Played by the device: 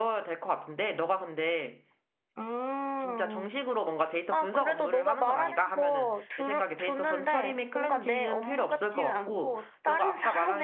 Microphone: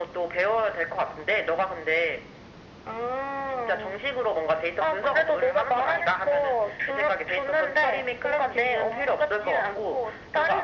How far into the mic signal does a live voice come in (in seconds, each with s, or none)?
none